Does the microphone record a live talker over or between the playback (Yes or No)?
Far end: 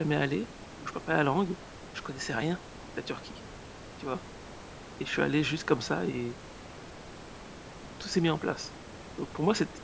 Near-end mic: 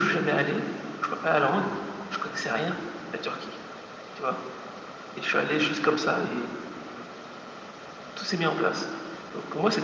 No